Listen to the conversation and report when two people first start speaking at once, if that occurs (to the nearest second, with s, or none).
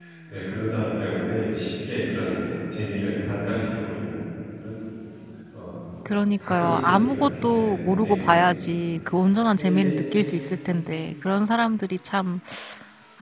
6 s